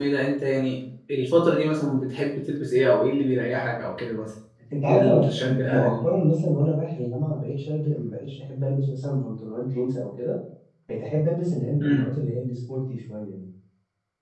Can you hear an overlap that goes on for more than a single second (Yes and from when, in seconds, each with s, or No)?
Yes, from 4.9 s